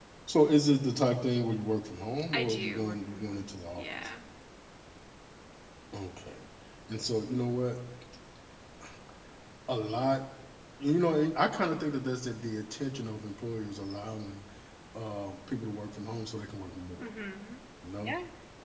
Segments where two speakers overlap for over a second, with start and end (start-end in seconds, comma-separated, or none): 2.3-3.8